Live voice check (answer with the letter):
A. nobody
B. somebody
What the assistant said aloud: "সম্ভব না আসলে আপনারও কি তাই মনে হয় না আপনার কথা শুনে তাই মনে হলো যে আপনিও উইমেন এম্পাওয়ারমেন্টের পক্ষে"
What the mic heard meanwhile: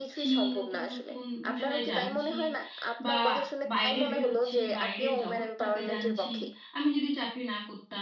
B